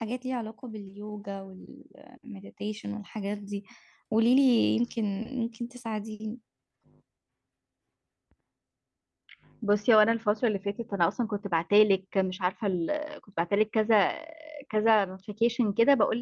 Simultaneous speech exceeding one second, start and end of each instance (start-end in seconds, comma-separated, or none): none